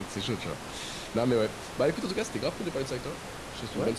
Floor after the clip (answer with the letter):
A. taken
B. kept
A